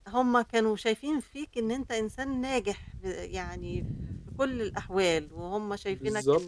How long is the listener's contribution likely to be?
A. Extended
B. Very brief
B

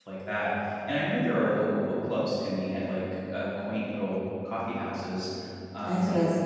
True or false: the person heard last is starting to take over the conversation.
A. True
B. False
A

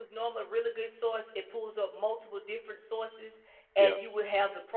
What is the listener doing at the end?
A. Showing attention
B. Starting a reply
A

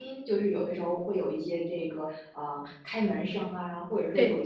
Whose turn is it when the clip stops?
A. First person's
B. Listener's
A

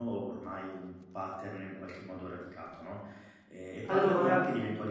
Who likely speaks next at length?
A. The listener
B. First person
B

